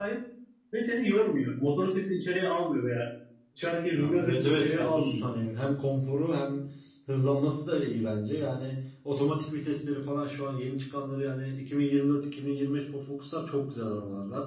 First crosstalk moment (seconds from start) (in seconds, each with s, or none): 3.9 s